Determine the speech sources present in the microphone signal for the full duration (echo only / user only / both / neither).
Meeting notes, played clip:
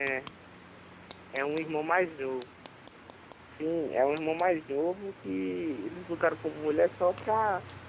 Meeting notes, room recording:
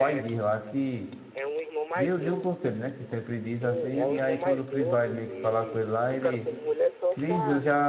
both